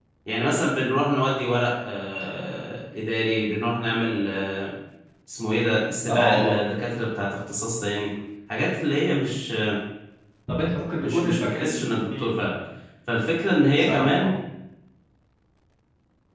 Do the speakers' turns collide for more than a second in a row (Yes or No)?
Yes